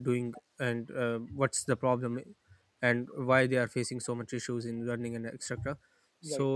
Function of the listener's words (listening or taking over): listening